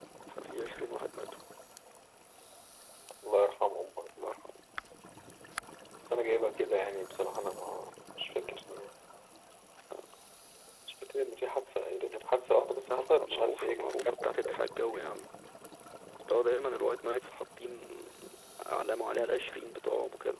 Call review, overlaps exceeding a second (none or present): present